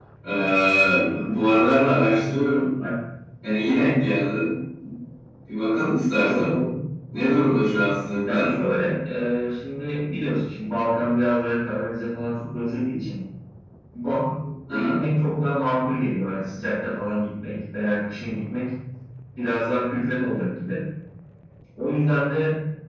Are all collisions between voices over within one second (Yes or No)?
Yes